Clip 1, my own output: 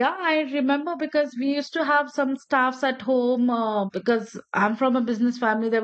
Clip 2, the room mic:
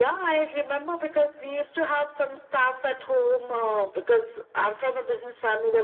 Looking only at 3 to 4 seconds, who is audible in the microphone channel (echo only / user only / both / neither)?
echo only